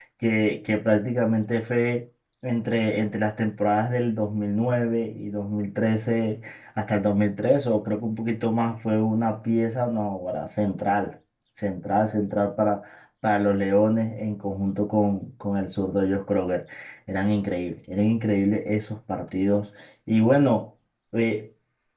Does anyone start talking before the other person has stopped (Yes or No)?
No